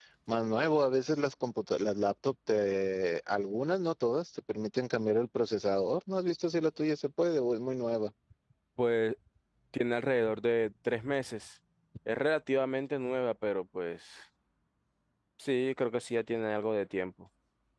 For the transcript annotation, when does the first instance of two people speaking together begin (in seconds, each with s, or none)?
none